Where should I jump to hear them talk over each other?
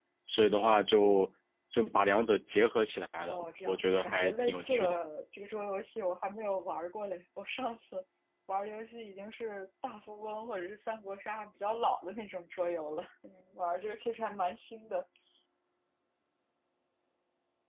3 s

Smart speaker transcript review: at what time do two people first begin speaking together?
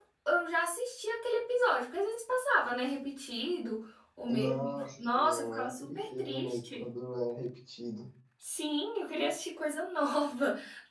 4 s

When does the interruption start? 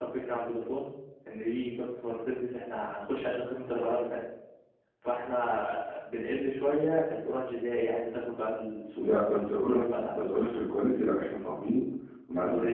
9 s

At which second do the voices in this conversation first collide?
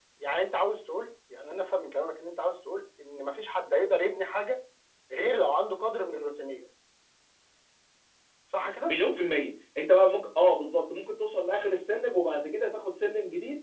none

